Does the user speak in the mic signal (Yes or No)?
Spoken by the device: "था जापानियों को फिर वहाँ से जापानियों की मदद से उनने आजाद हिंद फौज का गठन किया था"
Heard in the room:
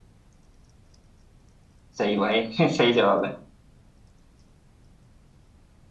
Yes